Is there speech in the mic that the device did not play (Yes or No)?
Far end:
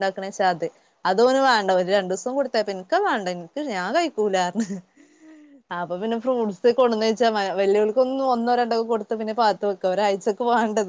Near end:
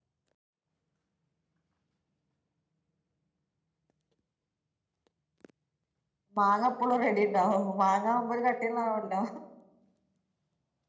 Yes